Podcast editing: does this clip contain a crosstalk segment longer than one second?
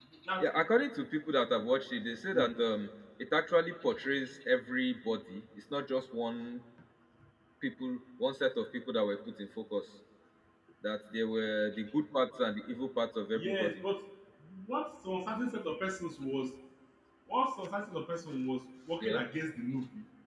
No

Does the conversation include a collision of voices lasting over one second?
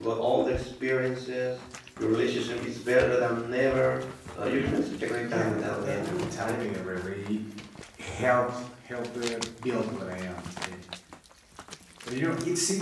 Yes, from 5.2 s

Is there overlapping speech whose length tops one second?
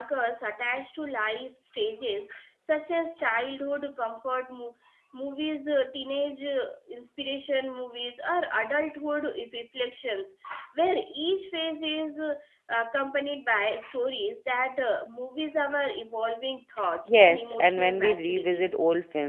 Yes, from 17.1 s

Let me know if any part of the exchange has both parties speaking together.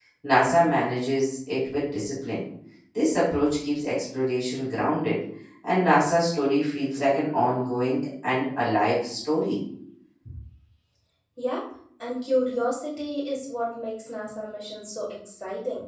No

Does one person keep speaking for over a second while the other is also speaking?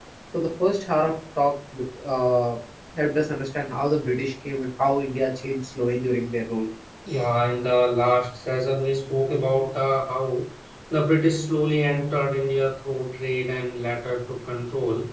No

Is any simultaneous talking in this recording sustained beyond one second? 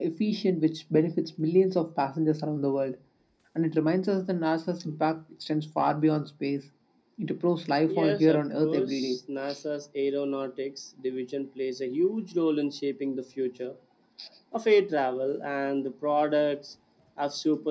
Yes, from 7.9 s

